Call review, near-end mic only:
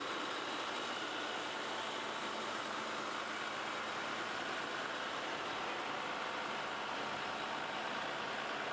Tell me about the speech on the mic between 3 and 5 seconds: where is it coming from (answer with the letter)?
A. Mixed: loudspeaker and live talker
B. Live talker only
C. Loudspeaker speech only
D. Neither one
D